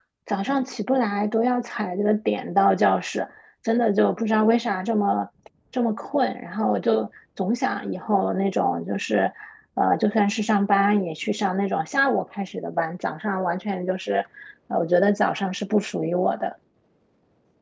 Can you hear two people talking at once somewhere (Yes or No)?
No